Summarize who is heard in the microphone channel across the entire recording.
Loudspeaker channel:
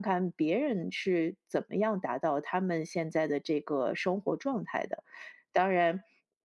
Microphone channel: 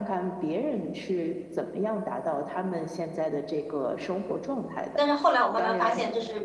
both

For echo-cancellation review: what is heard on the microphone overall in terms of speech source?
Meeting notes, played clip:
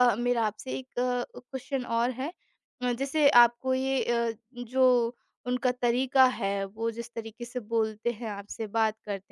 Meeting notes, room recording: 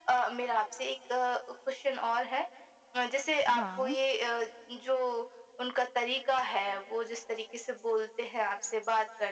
both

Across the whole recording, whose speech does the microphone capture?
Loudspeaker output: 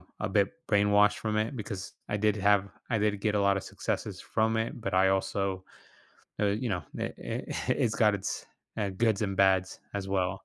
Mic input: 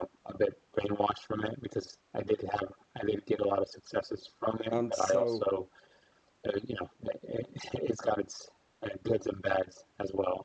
both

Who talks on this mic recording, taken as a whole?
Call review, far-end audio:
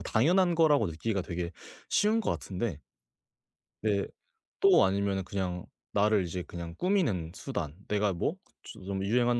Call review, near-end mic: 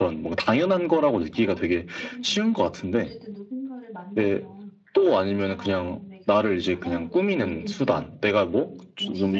both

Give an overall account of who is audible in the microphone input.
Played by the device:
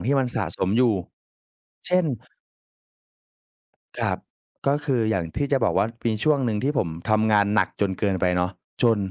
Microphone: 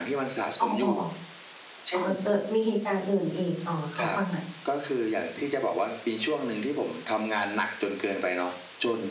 both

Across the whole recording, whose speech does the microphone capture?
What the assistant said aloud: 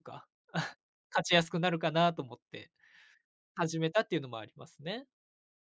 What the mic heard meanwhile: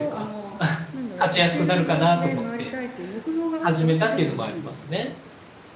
both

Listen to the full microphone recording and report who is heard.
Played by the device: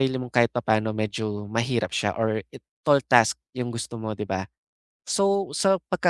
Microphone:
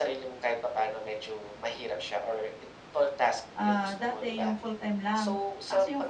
both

